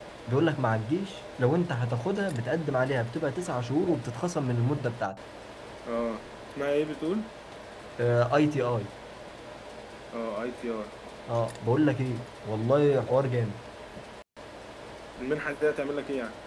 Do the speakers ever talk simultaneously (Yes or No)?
No